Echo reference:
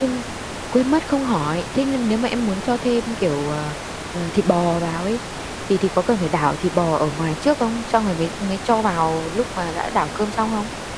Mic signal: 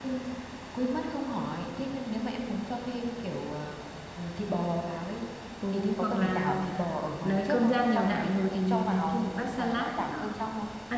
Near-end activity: present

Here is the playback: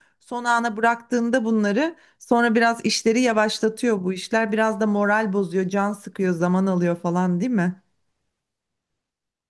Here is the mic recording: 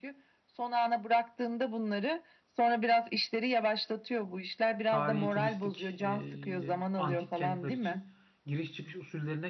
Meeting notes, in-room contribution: present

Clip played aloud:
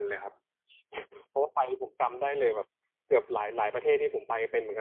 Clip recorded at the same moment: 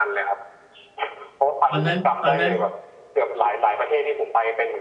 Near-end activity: present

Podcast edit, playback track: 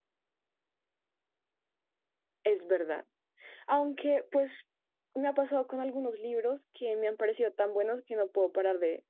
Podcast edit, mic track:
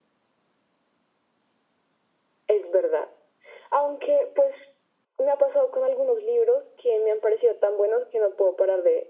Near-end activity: none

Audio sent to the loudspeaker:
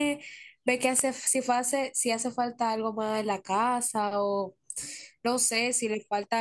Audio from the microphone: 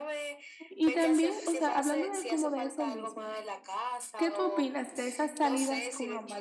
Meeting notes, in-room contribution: present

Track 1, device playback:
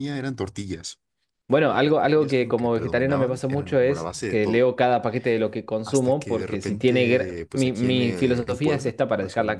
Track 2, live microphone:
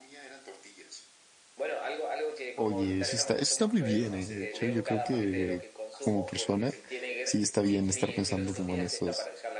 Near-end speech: present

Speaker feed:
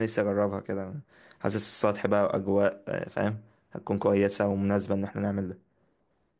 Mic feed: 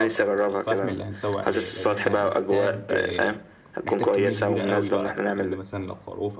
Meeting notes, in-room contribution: present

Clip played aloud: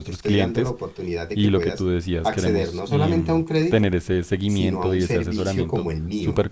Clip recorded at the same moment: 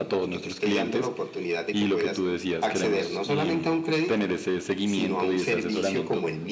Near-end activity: none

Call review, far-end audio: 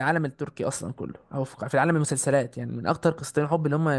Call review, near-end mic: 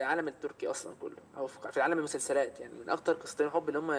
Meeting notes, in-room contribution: none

